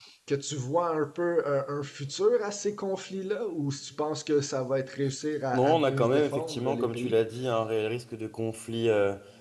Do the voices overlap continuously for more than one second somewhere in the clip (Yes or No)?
Yes